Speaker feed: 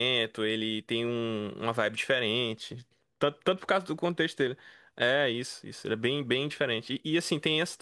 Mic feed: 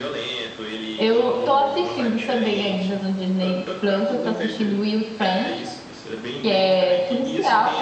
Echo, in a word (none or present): present